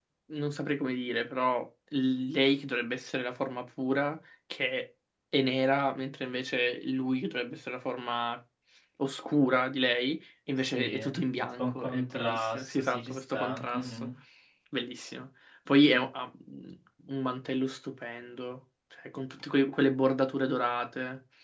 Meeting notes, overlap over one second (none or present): present